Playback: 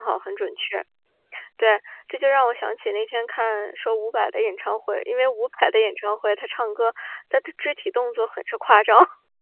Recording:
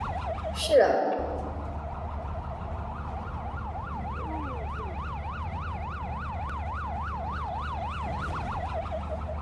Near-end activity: present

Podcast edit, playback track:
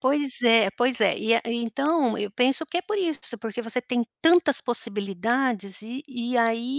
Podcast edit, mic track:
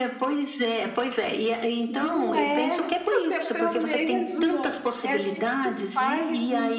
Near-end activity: present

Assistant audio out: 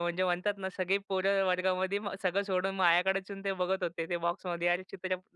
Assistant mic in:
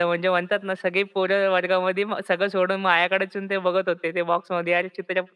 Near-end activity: none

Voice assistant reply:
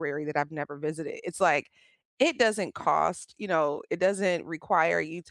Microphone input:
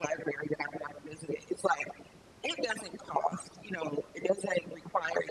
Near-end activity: none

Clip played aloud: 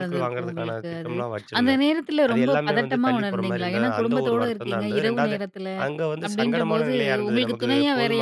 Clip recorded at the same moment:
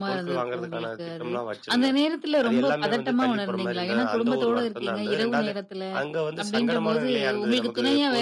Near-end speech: none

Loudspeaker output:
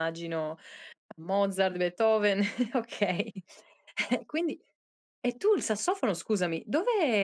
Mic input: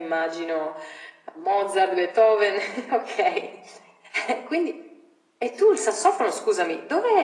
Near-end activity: none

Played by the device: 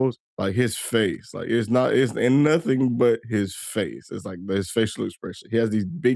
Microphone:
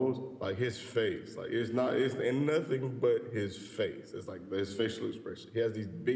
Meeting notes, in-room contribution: none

